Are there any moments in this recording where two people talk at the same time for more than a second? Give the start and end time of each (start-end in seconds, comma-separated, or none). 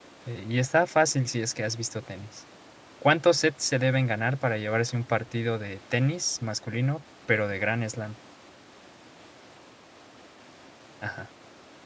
none